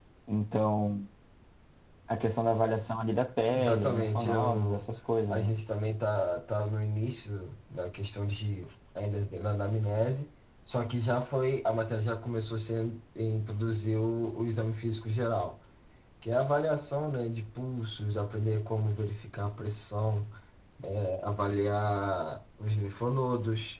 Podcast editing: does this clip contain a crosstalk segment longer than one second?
Yes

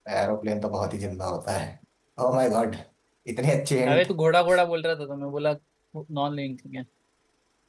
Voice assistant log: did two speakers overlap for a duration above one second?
No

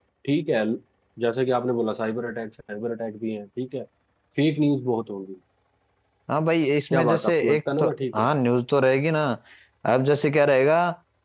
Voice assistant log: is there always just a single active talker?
No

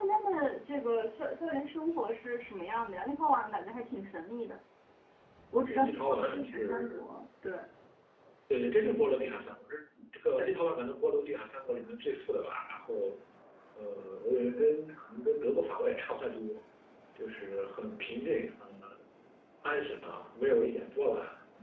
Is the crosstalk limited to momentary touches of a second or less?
No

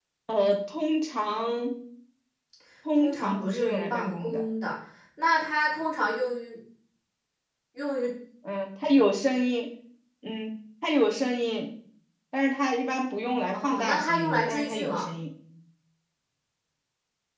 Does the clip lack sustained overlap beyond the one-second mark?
No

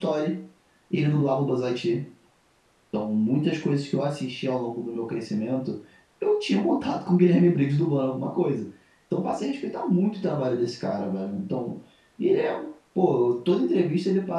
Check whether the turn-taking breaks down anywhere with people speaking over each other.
No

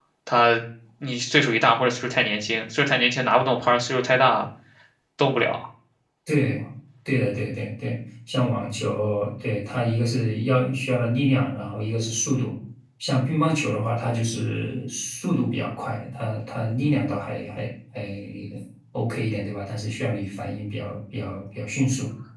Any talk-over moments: No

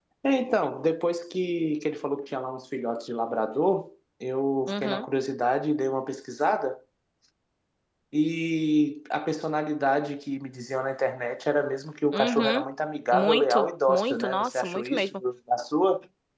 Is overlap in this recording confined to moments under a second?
No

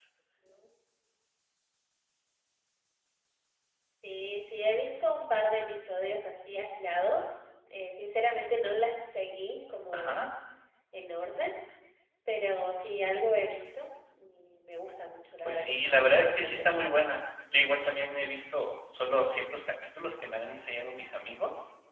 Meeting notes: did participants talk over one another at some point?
Yes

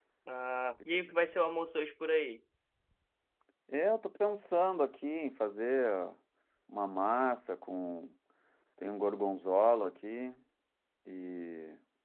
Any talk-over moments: No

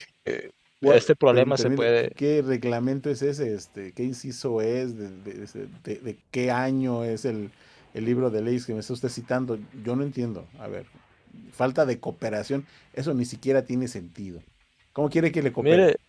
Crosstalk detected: Yes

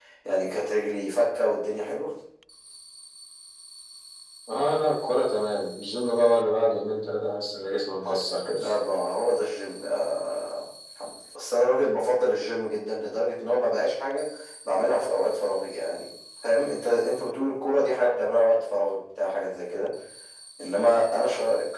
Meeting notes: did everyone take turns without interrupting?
Yes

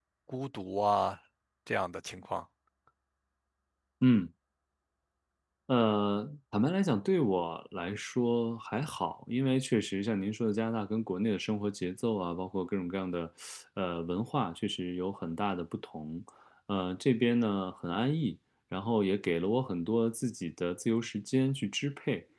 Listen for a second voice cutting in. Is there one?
No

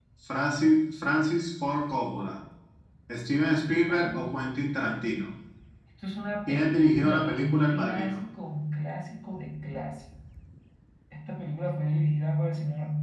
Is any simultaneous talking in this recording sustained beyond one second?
Yes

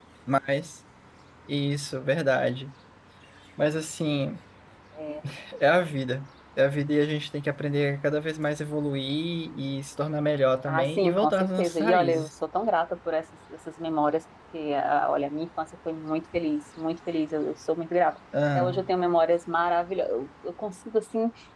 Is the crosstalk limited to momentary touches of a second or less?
No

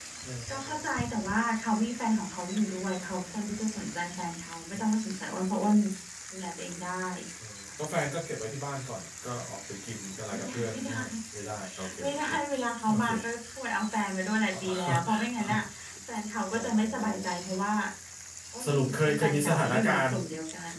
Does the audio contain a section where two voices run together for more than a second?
Yes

